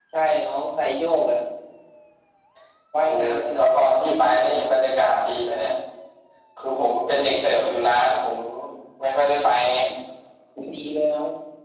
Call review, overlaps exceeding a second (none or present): present